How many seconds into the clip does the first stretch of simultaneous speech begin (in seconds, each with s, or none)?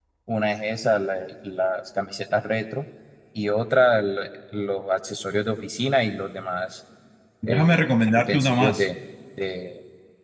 7.4 s